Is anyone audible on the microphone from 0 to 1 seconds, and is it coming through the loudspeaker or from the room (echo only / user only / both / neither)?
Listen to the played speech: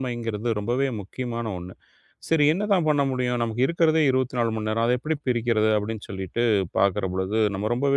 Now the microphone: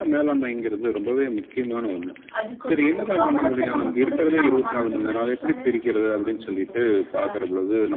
echo only